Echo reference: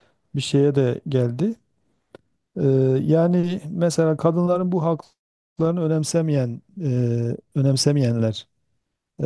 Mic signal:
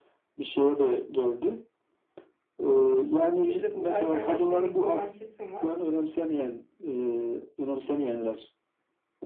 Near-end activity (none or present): present